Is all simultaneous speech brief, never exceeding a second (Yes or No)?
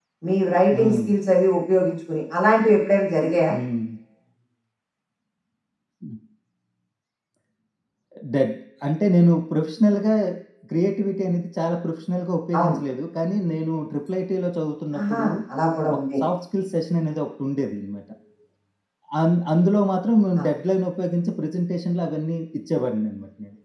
Yes